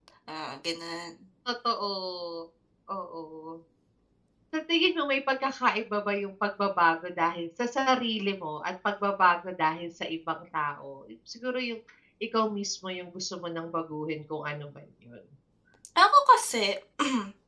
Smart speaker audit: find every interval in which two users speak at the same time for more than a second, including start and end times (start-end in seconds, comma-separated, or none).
none